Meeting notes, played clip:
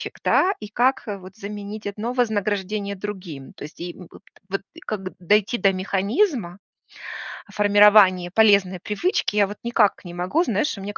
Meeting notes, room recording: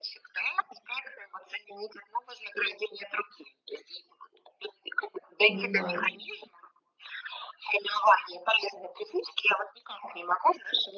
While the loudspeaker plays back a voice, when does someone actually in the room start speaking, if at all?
5.5 s

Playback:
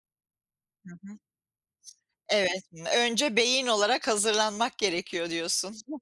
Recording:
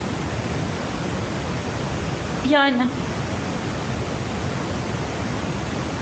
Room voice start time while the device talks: 2.4 s

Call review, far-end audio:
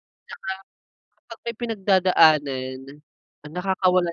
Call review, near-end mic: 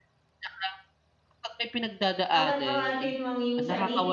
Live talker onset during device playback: 2.3 s

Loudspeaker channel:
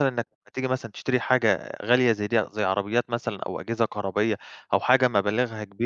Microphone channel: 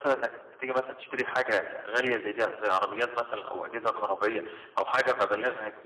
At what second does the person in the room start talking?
none

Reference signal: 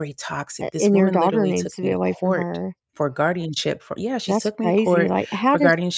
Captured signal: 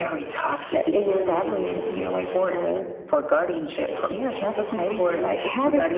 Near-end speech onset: none

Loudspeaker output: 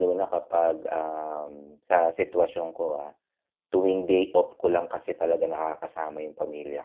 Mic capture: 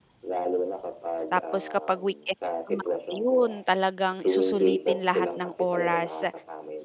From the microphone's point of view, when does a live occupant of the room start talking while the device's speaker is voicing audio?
1.3 s

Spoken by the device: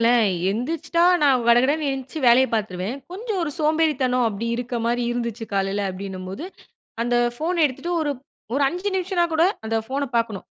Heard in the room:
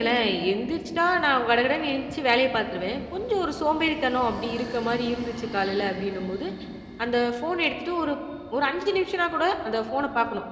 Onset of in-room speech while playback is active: none

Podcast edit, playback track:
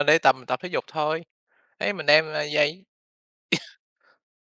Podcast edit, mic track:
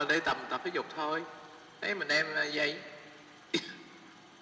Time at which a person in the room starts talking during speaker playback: none

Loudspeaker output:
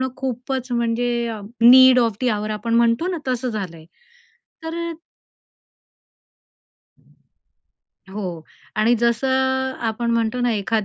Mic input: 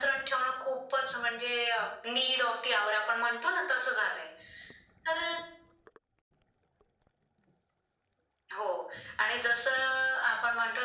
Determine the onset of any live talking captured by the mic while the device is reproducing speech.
none

